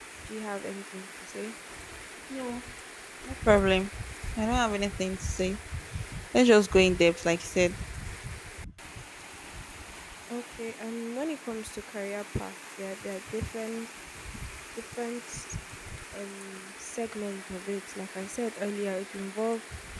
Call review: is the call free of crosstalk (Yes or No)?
Yes